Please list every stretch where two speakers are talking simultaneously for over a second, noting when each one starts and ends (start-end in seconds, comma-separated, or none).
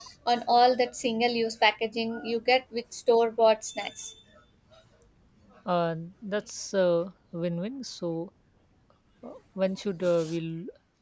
none